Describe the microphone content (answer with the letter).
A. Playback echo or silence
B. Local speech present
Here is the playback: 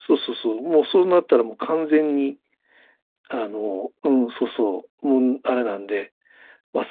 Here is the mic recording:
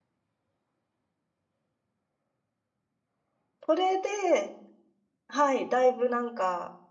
B